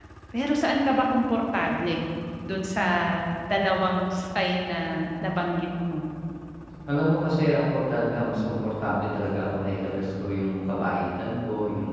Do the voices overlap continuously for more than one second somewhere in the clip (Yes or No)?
No